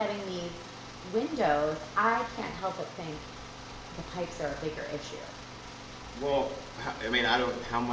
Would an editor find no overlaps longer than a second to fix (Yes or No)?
Yes